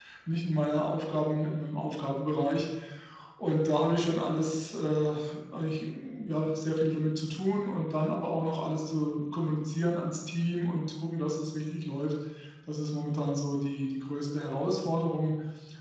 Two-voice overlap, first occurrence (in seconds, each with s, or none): none